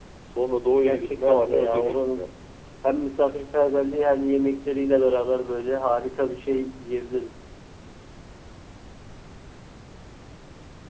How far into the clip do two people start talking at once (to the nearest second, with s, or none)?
1 s